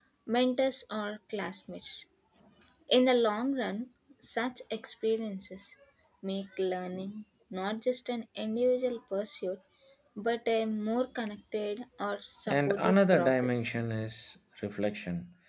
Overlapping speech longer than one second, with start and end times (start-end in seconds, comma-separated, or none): 12.5-13.7